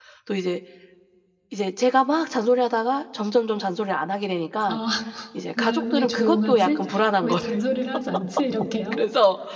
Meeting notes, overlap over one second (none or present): present